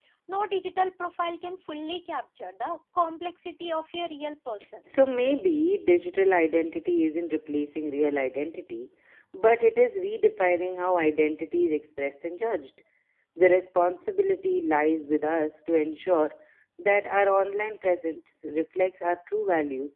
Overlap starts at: none

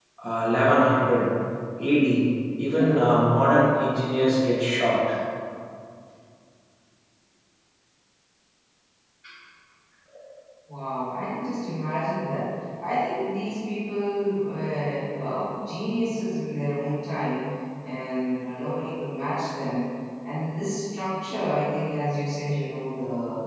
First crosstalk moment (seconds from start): none

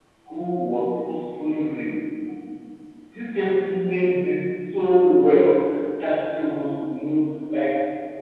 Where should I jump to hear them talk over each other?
none

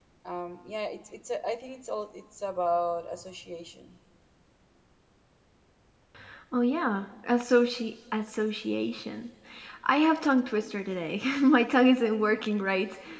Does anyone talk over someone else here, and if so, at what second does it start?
none

